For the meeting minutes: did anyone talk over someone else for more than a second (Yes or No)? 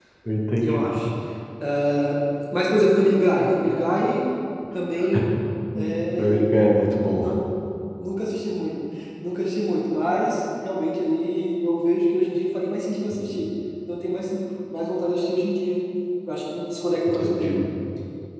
No